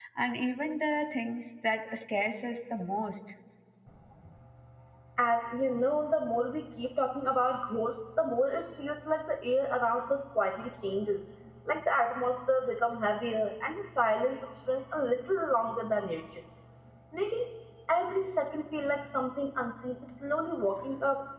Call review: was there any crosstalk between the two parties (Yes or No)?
No